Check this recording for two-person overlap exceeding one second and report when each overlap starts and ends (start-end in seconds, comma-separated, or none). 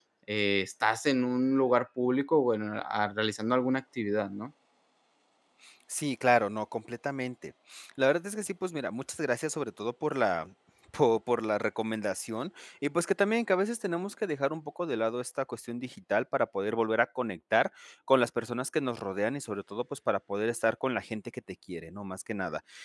none